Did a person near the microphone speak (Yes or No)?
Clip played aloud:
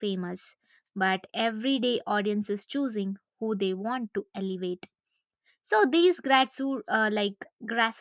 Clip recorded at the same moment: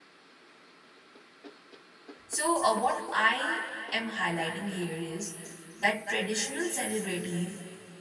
Yes